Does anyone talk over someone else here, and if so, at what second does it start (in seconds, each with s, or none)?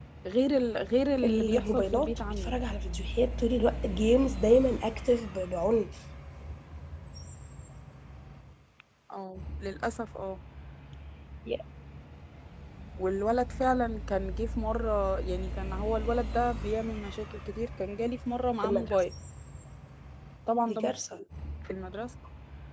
1.2 s